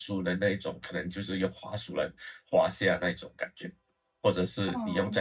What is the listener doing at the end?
listening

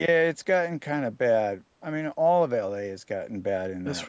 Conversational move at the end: taking over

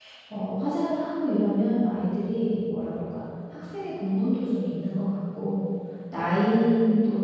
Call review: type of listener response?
listening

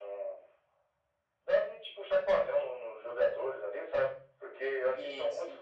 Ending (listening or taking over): listening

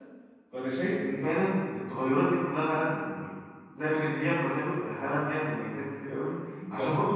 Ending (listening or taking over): listening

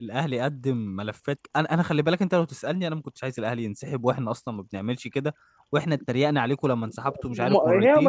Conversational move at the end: taking over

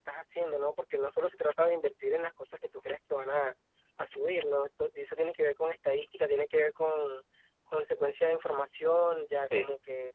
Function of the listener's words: listening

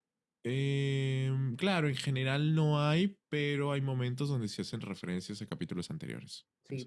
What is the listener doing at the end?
taking over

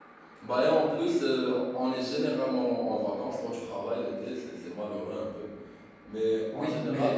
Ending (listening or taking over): taking over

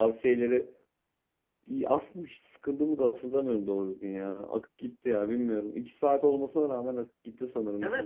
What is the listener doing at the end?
taking over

